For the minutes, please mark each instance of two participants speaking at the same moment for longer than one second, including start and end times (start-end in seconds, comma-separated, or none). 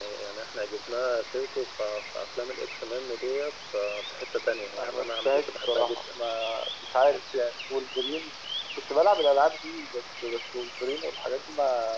4.8-6.2